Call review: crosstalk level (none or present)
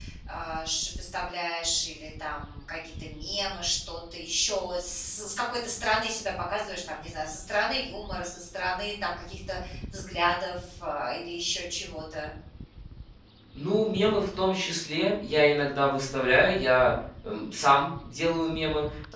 none